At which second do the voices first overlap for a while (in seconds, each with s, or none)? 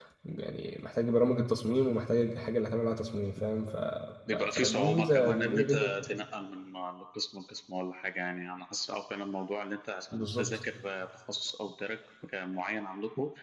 4.3 s